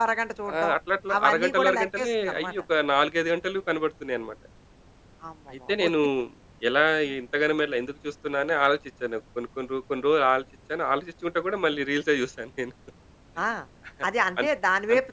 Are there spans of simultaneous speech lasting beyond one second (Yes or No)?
Yes